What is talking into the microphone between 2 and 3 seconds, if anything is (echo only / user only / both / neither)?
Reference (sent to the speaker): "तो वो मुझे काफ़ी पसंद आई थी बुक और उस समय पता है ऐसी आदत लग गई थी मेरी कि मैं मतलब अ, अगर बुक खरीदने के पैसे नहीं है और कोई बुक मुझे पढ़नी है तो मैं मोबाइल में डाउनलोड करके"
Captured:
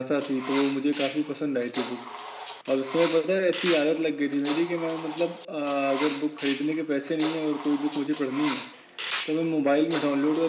echo only